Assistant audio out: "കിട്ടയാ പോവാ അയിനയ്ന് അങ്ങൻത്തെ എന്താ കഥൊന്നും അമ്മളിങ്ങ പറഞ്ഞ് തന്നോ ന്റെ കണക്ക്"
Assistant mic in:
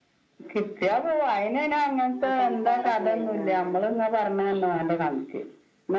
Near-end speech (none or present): present